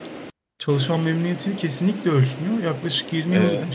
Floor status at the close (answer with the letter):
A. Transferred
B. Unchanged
B